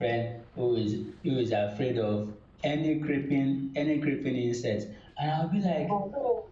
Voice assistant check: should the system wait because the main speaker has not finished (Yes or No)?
Yes